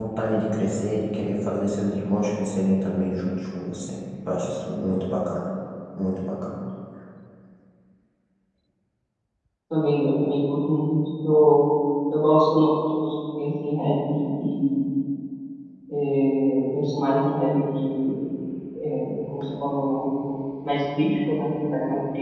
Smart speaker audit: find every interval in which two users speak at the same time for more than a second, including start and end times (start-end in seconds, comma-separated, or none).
none